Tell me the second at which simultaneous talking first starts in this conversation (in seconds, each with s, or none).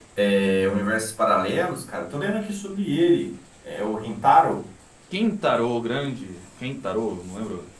none